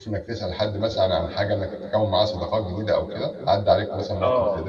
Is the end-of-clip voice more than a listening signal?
Yes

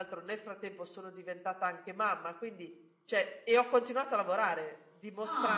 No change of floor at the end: Yes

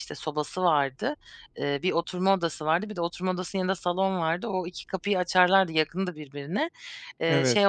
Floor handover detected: No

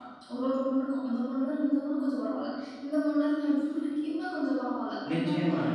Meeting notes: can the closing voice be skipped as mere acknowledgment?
No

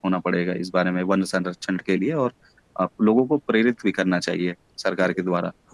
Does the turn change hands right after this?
Yes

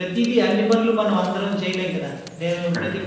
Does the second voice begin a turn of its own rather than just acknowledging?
No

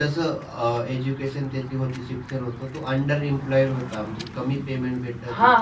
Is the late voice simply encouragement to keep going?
No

